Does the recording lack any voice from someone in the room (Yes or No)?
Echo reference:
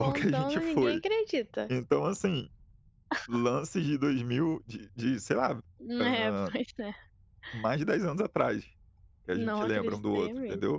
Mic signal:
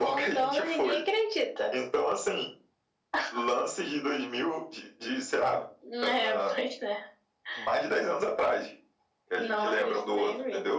Yes